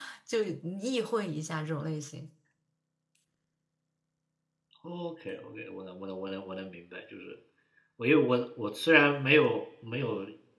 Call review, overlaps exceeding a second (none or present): none